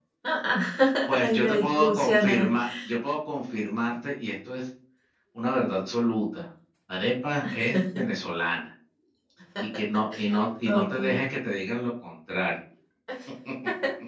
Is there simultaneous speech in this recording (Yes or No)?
Yes